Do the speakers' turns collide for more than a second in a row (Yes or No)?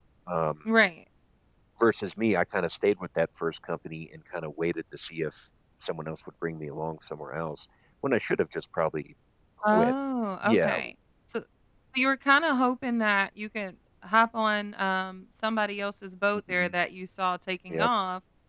No